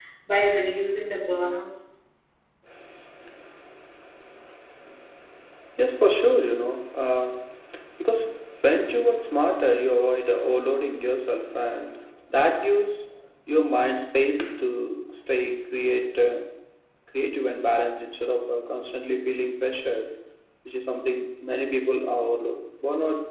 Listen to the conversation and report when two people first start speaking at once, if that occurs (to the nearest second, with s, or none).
none